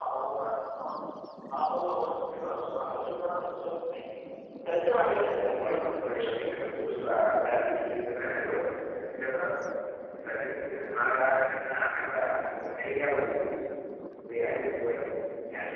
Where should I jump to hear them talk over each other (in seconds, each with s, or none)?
4.8 s